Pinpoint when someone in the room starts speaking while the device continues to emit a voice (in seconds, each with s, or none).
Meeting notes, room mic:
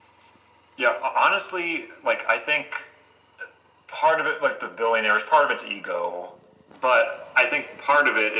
none